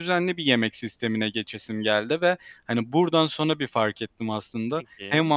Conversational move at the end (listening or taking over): listening